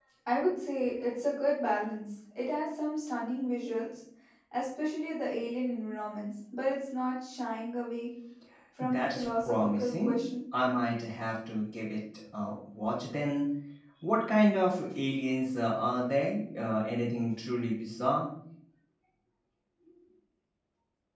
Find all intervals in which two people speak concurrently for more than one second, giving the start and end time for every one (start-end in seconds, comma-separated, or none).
8.8-10.1